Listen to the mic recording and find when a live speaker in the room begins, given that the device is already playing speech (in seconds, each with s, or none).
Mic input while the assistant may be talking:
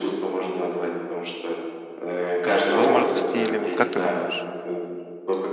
2.4 s